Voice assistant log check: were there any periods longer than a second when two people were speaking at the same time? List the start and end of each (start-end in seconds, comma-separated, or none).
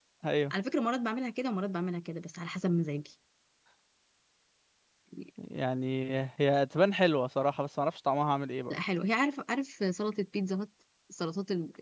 none